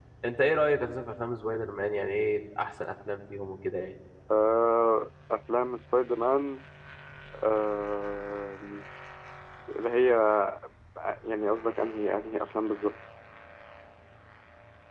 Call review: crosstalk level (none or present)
none